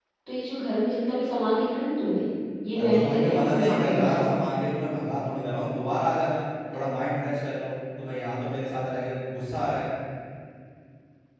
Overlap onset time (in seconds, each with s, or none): 2.7 s